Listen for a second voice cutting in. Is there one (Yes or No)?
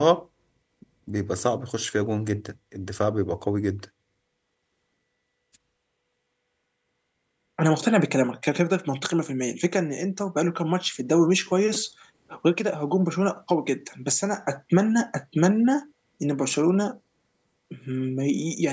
No